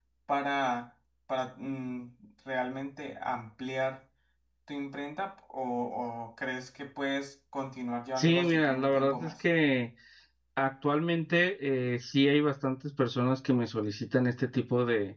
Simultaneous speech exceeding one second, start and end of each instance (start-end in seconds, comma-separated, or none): 8.2-9.4